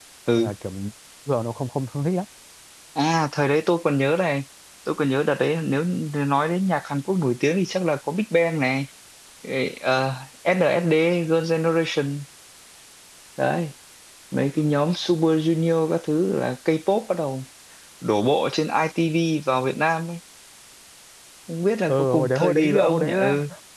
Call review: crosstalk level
present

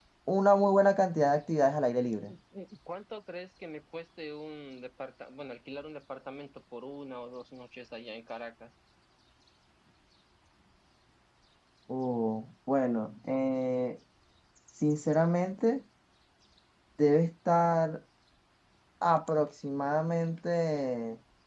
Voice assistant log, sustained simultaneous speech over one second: none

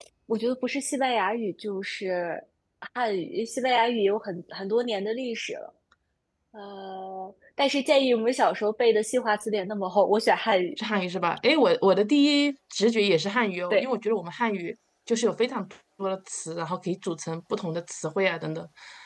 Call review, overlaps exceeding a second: none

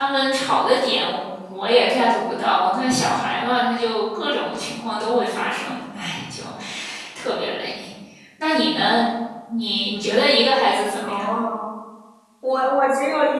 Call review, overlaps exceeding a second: none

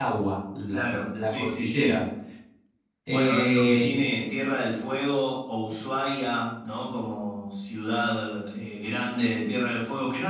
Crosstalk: present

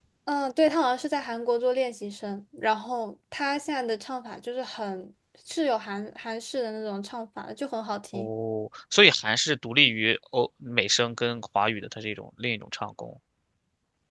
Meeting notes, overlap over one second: none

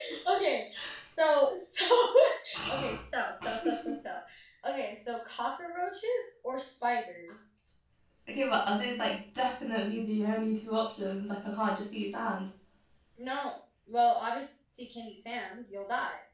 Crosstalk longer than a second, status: none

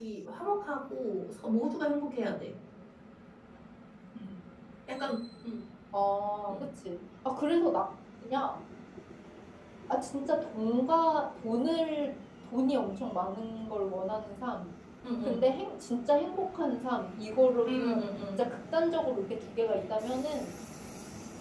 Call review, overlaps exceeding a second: none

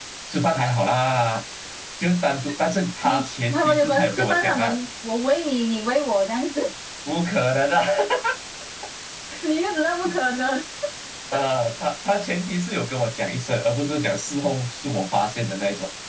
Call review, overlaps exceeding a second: present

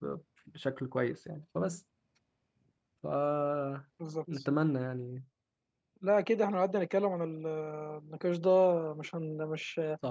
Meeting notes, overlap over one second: none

